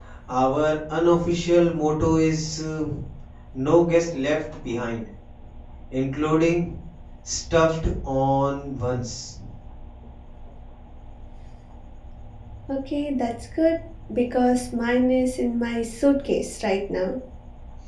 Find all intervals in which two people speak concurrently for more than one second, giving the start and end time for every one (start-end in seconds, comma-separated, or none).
none